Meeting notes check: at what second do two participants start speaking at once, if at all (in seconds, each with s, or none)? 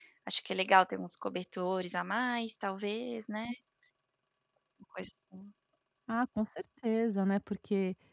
none